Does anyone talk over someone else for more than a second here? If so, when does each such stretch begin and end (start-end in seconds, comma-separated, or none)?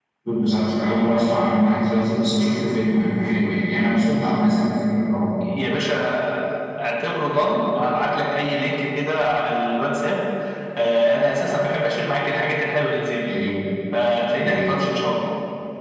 none